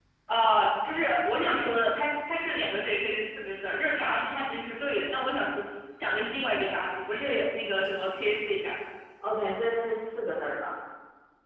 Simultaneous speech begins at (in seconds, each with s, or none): none